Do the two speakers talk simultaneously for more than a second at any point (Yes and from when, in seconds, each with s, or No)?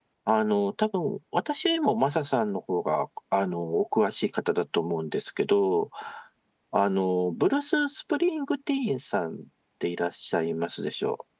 No